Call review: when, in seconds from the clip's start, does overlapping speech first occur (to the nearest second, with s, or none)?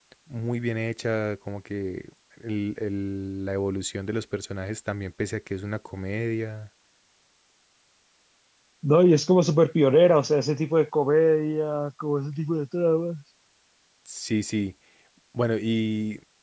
none